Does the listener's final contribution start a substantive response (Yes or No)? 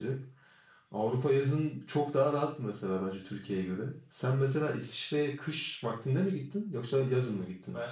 Yes